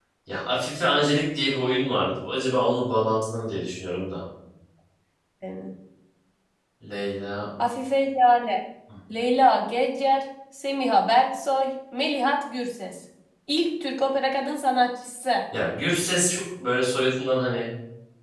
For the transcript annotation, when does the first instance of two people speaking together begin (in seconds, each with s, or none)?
none